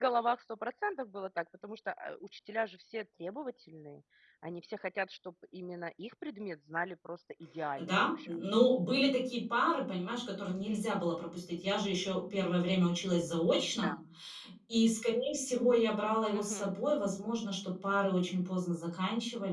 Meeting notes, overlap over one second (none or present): none